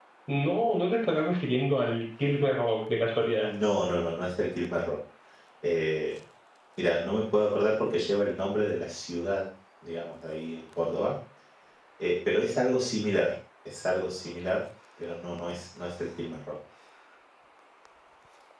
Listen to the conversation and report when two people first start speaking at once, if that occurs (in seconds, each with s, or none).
none